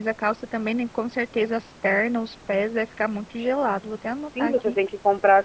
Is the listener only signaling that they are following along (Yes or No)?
No